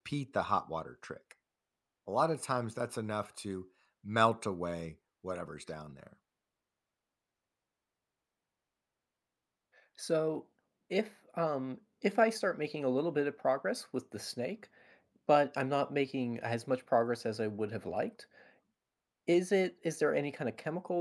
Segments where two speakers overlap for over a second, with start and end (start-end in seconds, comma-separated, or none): none